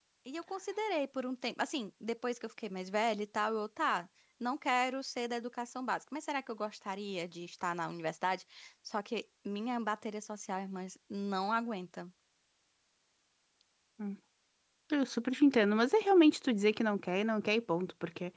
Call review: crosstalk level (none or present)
none